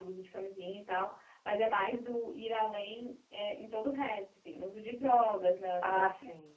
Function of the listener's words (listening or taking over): taking over